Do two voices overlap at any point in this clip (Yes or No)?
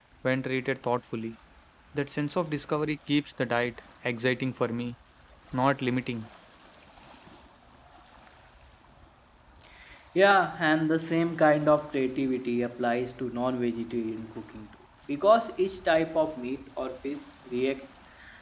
No